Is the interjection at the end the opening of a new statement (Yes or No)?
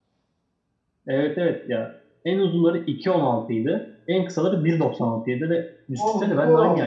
Yes